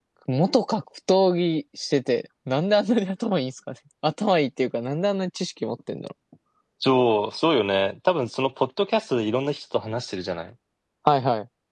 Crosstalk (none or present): none